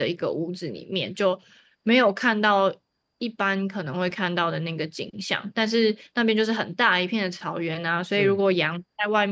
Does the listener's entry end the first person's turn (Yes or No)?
No